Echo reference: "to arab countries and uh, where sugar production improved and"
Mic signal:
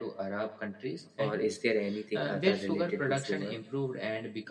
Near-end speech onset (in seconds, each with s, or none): 1.2 s